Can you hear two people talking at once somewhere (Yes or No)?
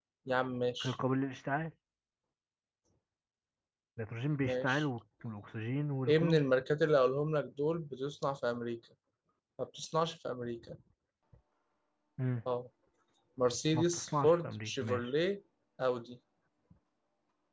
Yes